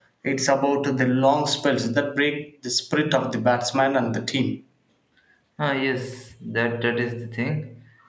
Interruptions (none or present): none